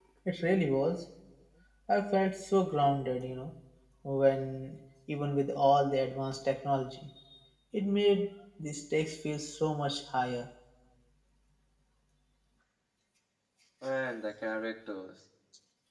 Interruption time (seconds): none

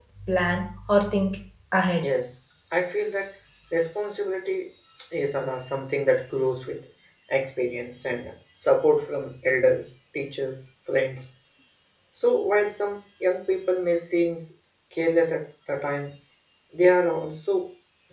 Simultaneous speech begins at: none

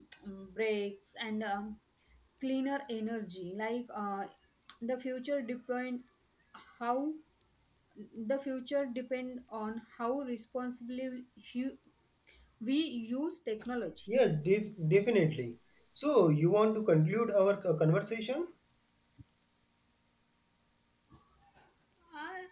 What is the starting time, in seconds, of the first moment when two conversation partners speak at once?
none

